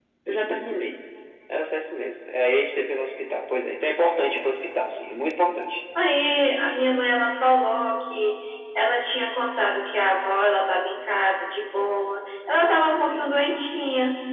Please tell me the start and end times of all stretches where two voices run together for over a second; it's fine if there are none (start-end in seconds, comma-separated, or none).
none